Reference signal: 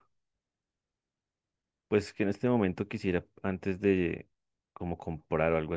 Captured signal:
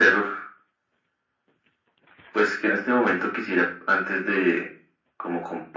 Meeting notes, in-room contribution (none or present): none